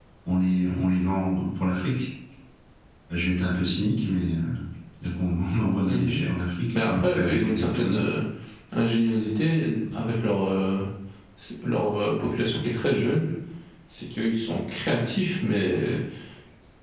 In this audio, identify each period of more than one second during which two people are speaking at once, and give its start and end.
6.8-8.1

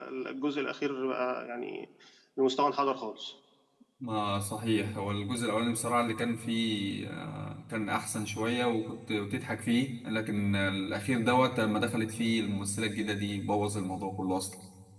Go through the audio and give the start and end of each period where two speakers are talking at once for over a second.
none

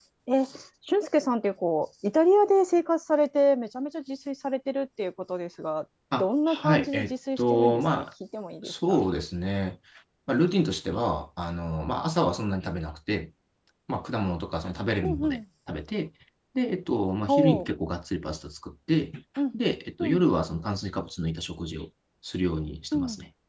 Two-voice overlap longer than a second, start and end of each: 6.2-8.0

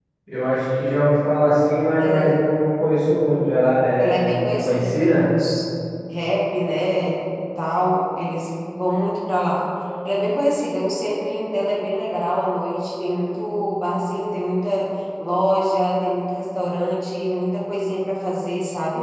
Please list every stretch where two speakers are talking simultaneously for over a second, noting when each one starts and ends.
4.0-5.3

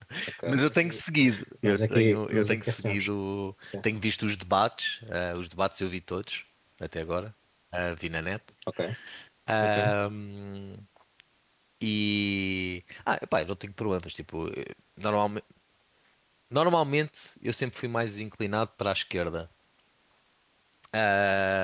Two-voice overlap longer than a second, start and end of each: 1.6-3.1

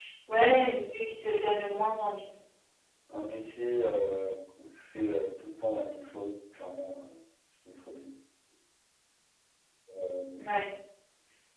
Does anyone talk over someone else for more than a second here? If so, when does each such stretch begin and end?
none

